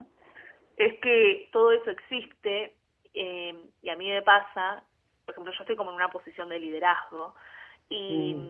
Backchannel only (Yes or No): Yes